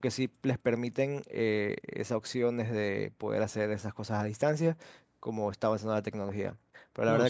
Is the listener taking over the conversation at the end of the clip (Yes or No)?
No